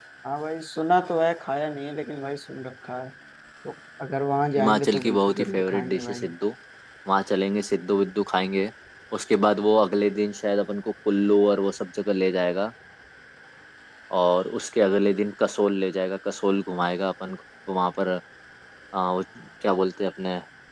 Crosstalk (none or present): present